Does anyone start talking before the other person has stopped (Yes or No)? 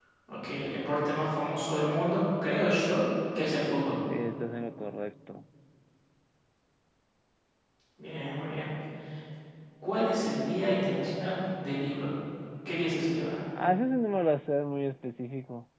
No